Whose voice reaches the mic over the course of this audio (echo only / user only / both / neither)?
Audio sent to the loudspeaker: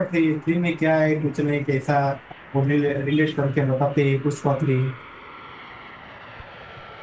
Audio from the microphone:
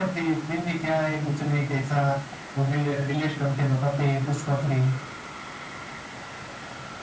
echo only